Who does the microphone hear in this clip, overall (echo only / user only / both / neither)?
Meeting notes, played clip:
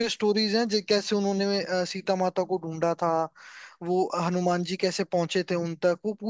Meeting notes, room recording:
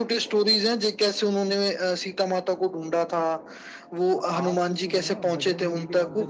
both